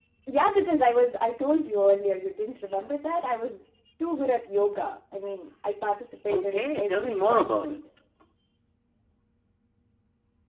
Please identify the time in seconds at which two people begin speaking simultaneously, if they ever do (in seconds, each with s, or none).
6.3 s